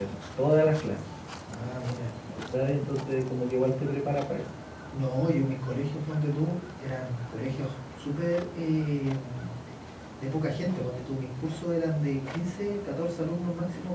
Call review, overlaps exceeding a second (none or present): none